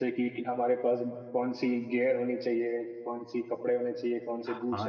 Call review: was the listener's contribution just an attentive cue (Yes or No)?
No